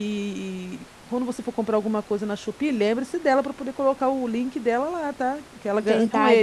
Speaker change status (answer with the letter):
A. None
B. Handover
B